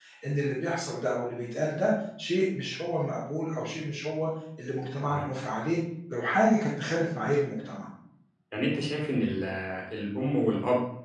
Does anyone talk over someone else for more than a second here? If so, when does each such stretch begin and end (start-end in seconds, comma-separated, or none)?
none